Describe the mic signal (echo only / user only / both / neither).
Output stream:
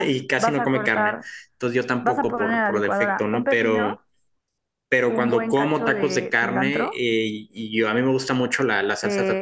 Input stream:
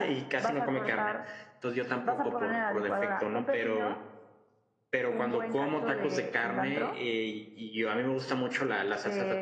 echo only